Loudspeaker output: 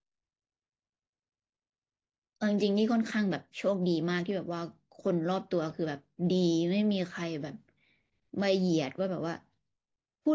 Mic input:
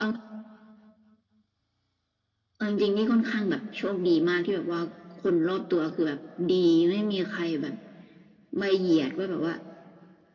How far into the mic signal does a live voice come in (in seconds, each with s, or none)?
none